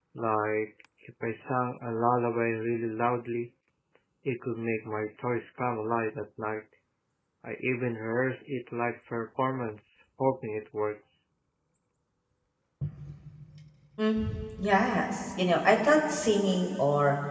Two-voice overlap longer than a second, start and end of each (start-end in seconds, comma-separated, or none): none